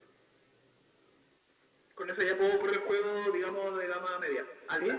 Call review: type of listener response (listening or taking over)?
taking over